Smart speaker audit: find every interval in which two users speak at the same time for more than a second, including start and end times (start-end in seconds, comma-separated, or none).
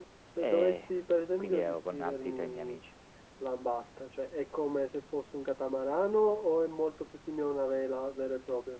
1.4-2.8